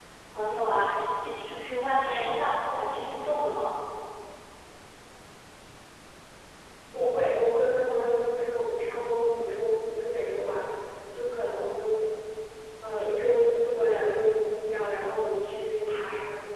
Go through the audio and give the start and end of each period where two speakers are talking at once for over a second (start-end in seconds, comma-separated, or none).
none